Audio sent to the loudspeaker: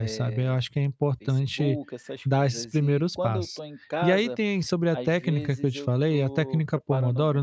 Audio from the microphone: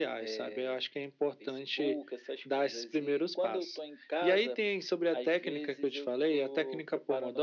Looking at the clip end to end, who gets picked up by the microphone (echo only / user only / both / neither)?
echo only